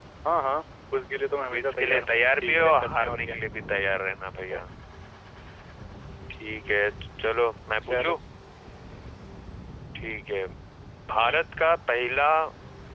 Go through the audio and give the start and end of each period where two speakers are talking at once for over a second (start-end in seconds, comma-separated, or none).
1.5-3.4